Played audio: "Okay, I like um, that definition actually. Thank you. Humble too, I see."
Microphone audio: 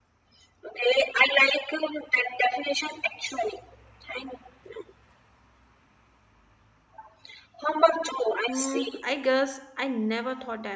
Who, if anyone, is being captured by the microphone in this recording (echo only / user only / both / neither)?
both